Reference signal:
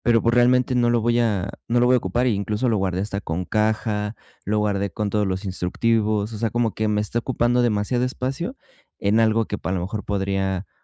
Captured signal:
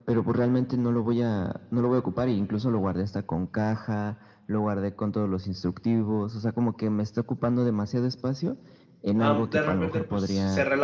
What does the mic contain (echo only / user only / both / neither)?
both